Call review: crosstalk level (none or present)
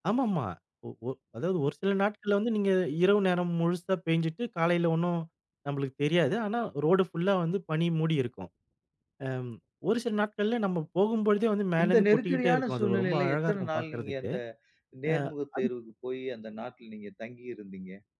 present